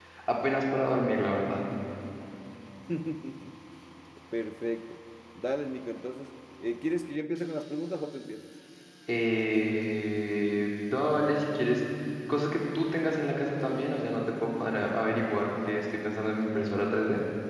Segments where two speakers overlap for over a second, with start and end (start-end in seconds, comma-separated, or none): none